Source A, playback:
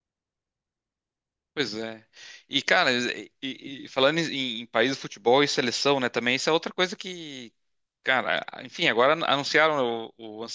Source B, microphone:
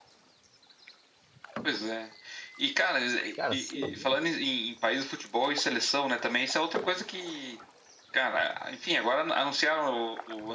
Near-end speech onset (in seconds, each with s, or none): 3.4 s